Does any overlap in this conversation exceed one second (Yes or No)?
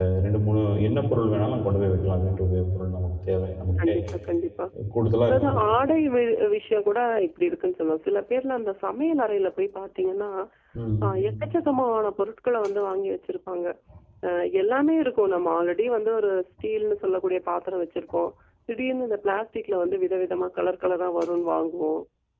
No